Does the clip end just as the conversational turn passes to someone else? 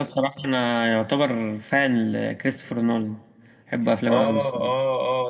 Yes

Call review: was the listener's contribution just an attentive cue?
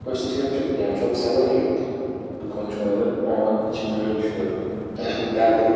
Yes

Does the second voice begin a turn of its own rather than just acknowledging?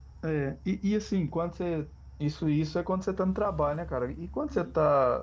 No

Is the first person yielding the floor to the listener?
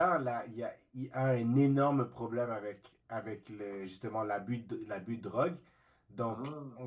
No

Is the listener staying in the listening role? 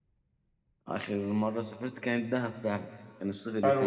No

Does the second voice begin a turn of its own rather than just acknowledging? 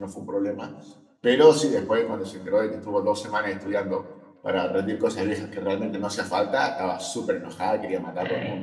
Yes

